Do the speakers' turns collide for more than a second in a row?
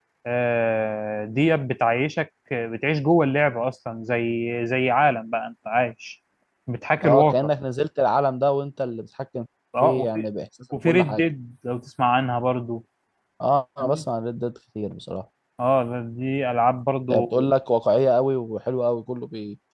No

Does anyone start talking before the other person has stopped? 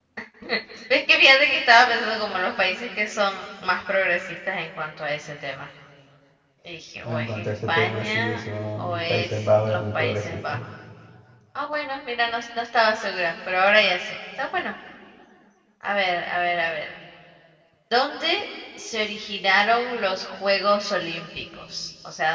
Yes, from 7.0 s

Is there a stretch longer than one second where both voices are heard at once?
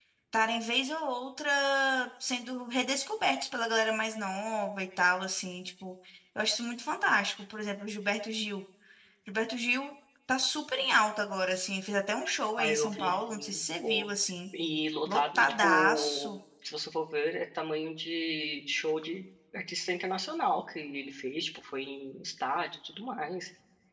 Yes, from 12.6 s

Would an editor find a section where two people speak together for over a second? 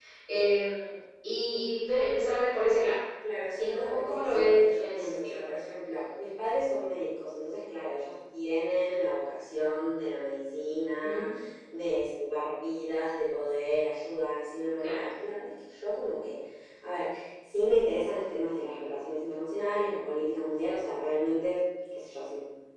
Yes, from 3.5 s

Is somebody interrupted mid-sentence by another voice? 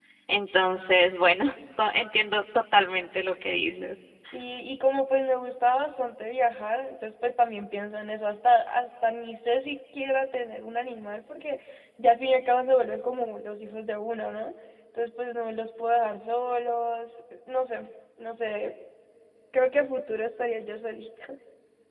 No

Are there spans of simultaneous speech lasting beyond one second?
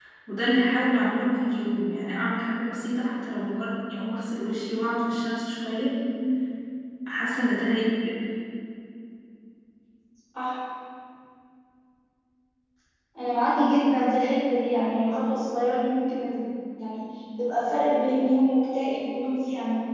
No

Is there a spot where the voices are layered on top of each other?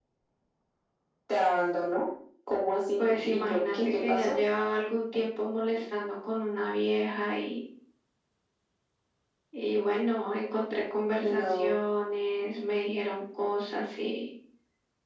Yes, from 3.0 s

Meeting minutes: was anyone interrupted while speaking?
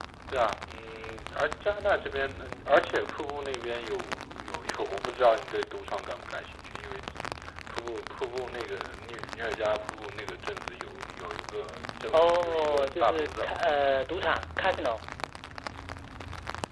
Yes, from 12.1 s

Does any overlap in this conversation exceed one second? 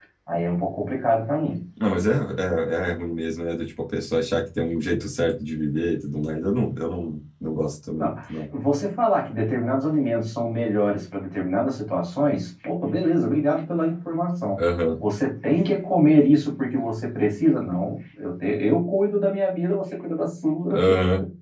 No

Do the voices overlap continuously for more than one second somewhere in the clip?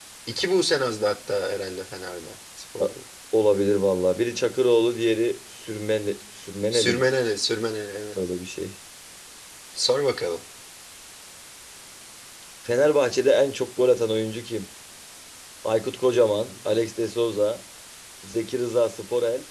No

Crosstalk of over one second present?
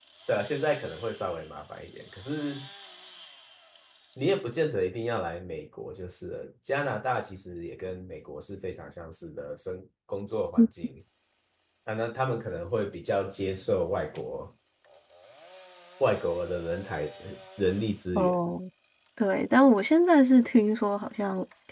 No

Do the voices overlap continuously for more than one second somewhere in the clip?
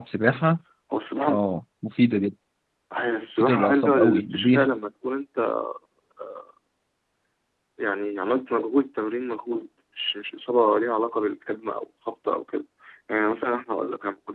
Yes, from 3.3 s

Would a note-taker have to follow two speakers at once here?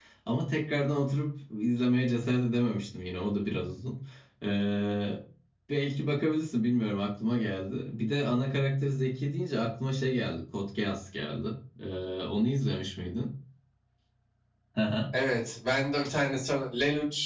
No

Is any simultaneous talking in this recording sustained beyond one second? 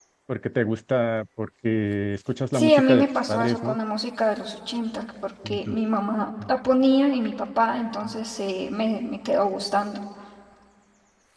Yes, from 2.5 s

